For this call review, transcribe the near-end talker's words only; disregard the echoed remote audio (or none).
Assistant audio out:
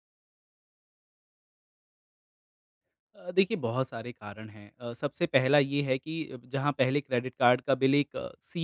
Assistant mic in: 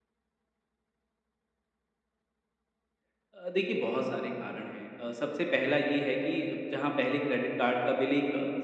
none